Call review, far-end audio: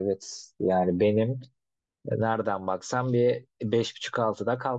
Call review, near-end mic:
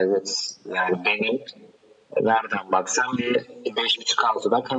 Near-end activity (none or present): none